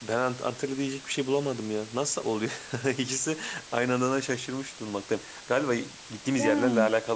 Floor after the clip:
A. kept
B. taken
A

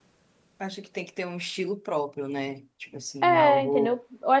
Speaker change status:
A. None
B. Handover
B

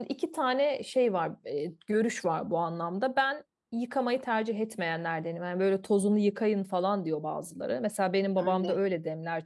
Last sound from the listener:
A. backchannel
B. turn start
A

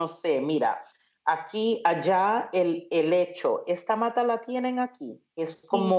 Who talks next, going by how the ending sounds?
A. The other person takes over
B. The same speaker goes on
B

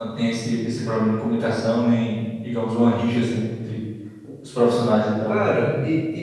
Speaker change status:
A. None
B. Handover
B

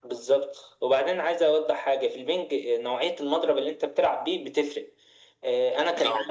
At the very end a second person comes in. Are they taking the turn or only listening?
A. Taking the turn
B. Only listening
B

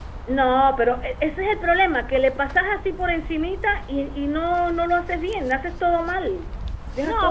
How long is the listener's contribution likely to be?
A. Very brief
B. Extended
B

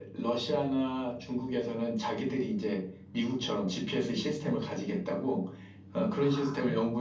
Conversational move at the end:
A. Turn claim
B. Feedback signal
B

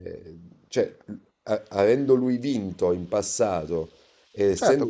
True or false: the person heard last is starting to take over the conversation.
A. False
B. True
B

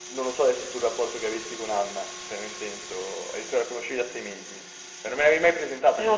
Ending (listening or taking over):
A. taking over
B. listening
B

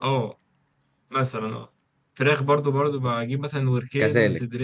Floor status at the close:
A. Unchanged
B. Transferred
A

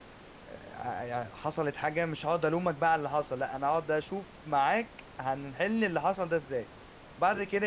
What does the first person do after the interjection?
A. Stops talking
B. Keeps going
B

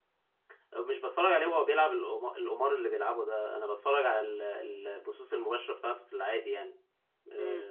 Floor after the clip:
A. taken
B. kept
A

